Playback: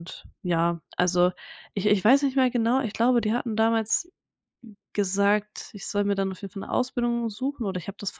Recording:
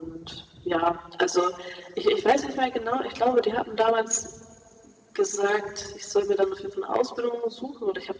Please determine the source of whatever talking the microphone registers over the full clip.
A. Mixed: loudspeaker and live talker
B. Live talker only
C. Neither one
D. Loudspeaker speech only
D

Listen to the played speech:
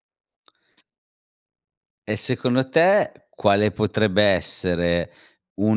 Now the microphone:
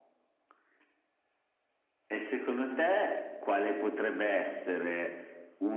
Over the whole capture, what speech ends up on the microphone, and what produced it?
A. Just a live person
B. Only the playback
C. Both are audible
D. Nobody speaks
B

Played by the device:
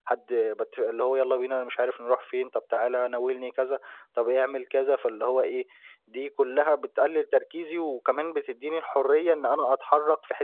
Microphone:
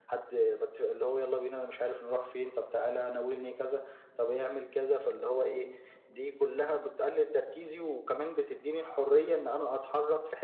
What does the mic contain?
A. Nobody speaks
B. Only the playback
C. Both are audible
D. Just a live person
B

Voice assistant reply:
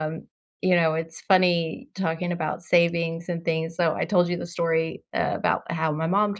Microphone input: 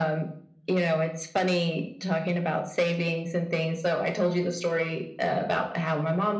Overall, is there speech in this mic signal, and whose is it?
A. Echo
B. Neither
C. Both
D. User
A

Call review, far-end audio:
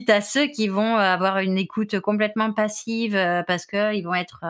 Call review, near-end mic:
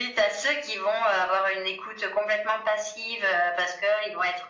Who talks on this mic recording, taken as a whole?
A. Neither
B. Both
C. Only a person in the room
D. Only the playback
D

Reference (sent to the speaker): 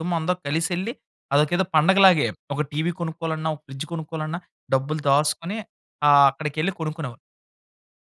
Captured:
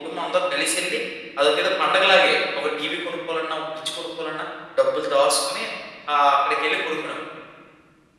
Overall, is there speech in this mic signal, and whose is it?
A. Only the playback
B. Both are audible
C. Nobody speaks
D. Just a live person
A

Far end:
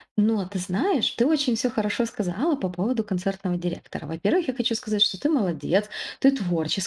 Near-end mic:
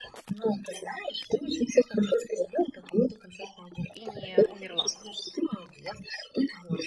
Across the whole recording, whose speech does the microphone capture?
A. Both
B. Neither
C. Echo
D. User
A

